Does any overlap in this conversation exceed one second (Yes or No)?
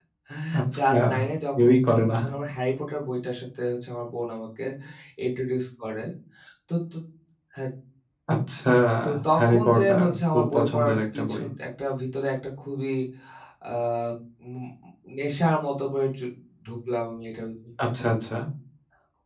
Yes